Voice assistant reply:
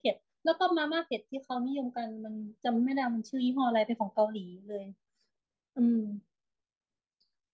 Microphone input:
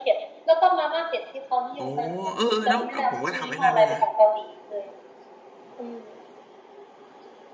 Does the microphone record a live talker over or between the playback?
Yes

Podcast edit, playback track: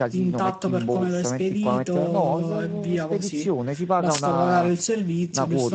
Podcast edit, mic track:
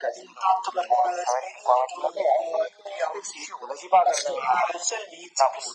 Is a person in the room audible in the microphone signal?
No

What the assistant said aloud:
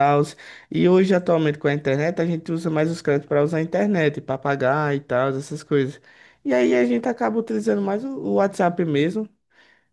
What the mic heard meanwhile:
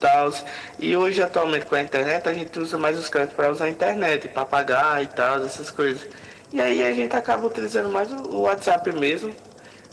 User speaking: No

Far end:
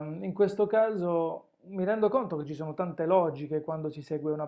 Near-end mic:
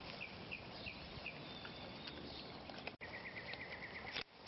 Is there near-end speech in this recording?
No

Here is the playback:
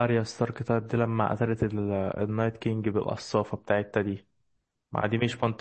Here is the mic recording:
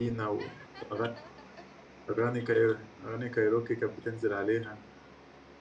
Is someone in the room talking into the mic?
Yes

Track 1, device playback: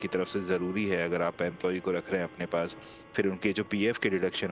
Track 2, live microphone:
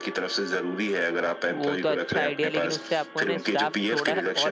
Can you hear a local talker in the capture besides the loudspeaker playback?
Yes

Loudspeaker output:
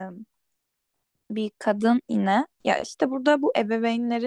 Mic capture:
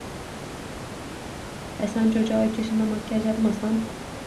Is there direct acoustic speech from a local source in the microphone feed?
Yes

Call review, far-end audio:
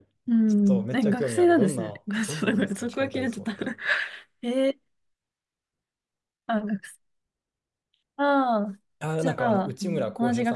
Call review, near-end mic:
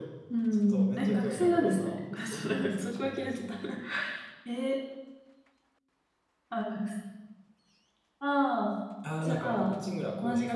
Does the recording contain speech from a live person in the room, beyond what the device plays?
No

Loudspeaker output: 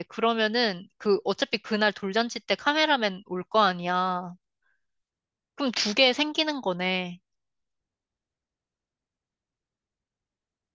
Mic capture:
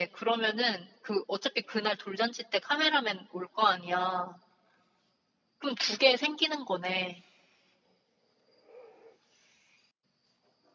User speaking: No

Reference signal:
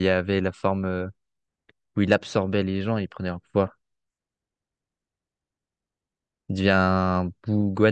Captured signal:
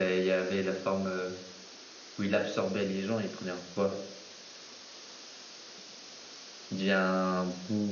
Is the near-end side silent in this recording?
Yes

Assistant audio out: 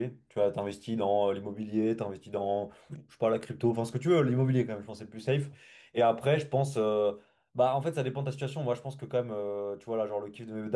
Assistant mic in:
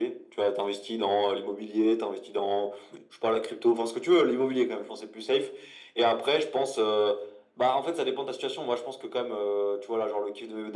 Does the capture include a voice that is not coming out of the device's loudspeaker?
No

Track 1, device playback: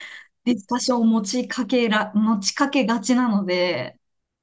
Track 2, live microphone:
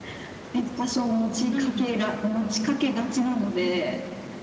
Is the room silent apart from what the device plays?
No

